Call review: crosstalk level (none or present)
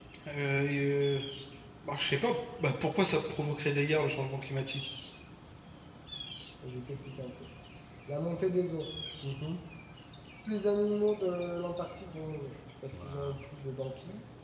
none